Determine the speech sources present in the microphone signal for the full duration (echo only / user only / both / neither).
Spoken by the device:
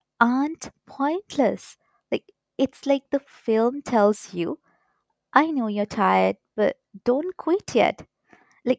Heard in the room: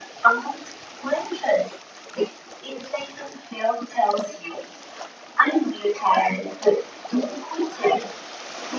echo only